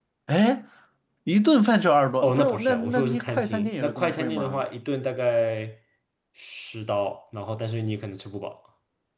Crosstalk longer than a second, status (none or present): present